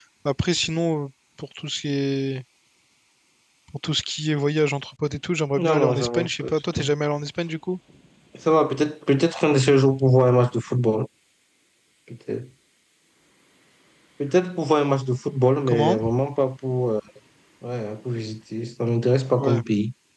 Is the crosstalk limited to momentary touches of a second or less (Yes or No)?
No